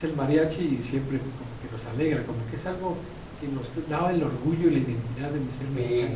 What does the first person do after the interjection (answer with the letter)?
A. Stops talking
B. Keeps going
A